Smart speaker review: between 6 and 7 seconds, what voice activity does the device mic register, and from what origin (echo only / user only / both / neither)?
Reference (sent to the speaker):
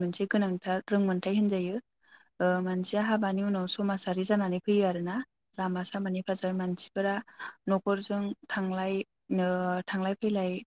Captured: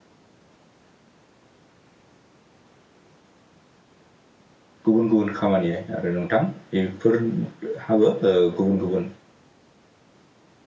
user only